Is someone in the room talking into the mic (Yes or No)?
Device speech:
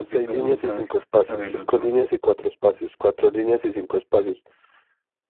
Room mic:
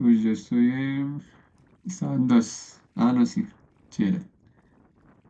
Yes